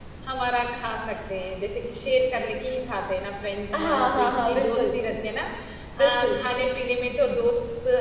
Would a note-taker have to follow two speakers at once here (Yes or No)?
Yes